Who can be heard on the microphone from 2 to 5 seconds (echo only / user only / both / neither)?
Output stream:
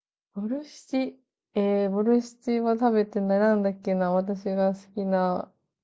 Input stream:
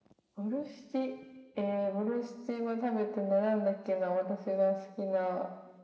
echo only